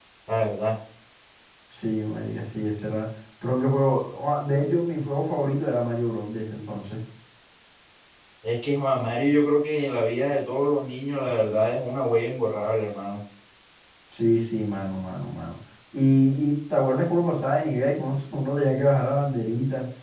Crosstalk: none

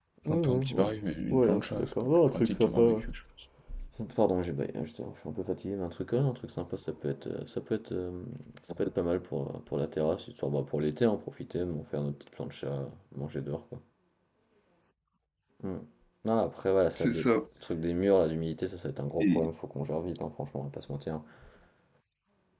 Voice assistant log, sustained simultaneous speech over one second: present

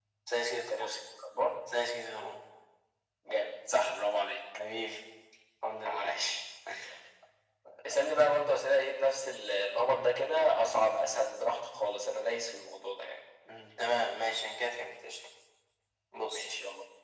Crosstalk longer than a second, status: none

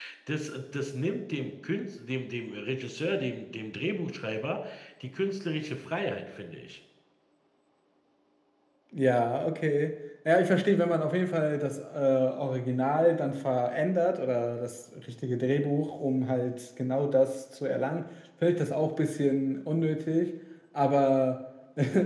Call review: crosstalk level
none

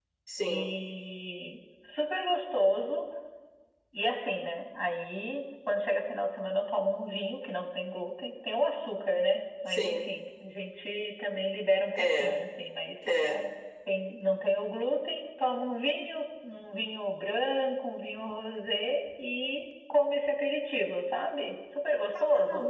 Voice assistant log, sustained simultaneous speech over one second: none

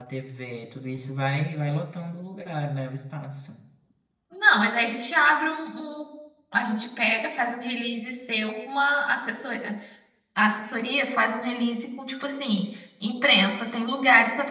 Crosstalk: none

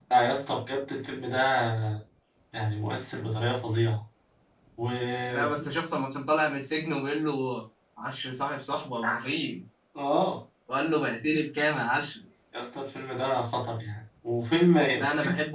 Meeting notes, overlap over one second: none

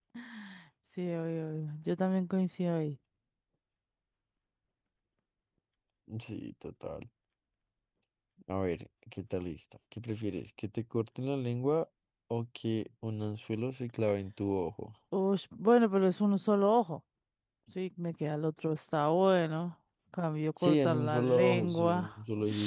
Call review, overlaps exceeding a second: present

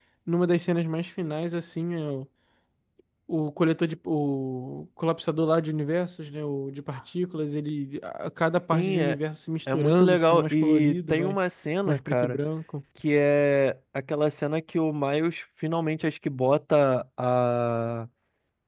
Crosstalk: present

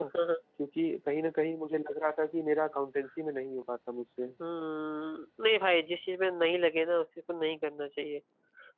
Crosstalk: none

